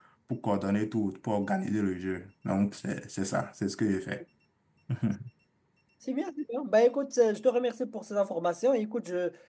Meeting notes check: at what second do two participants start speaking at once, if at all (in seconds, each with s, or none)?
none